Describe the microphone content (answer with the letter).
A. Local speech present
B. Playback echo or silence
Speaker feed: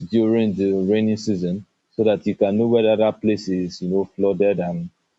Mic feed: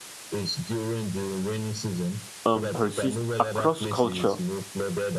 A